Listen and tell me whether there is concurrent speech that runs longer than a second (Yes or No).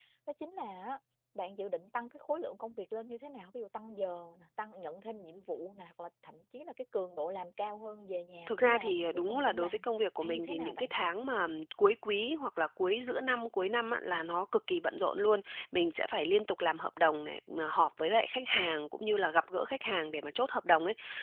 Yes